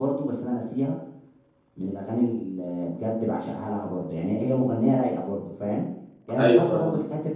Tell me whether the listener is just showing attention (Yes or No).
Yes